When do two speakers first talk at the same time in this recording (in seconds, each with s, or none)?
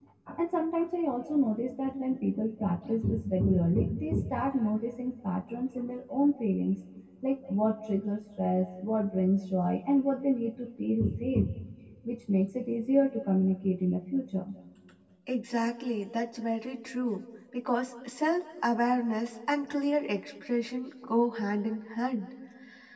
none